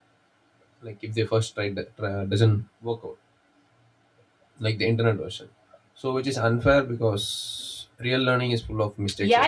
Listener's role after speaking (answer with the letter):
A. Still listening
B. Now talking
B